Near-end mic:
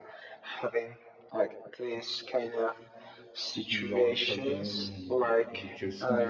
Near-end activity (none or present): present